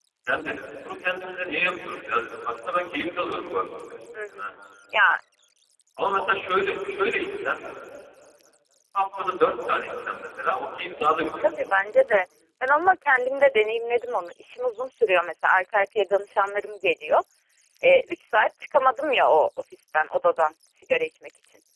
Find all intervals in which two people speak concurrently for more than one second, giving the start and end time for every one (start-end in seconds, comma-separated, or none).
none